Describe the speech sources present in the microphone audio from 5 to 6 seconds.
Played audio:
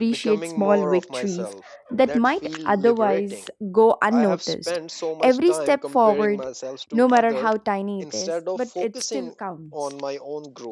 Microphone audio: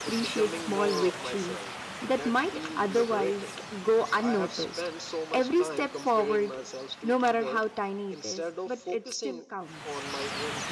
echo only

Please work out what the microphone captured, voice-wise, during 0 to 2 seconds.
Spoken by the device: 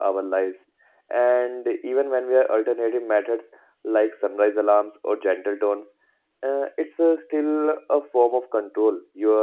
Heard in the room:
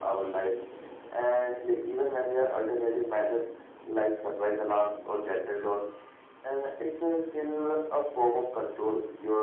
echo only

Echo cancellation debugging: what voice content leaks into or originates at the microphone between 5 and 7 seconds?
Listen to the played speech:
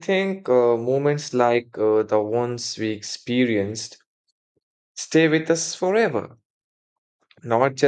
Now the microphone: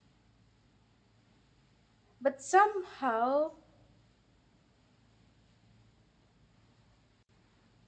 neither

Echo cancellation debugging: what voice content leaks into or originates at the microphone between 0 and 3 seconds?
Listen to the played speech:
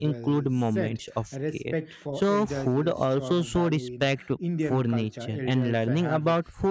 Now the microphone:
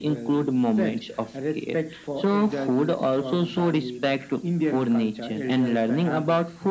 echo only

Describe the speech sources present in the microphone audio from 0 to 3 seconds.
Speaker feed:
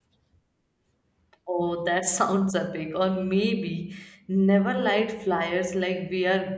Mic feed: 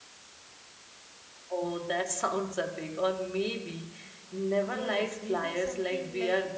echo only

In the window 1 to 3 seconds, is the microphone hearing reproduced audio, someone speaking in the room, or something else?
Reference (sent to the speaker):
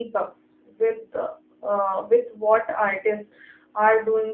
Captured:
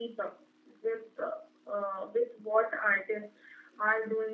echo only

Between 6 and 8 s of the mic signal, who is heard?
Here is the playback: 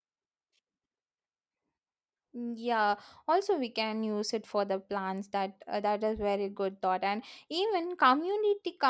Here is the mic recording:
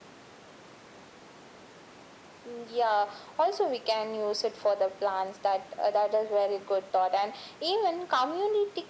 echo only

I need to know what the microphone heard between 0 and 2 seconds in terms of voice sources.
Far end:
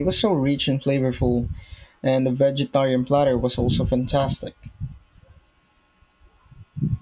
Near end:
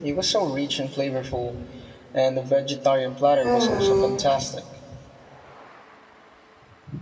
echo only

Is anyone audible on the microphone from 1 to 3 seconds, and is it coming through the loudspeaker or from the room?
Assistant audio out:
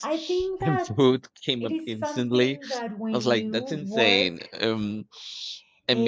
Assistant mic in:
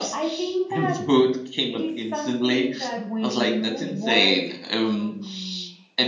echo only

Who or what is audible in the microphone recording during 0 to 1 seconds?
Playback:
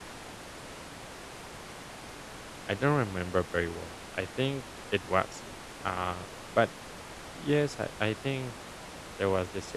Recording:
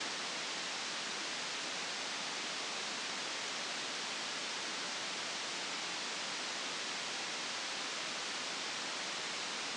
neither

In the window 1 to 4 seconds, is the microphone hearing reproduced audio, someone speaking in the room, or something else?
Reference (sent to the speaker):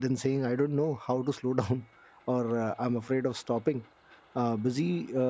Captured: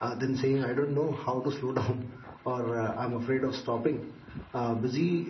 echo only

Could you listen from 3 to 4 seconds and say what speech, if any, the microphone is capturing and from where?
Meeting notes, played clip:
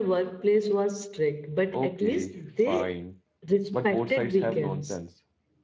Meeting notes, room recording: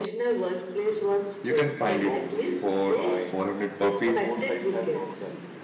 both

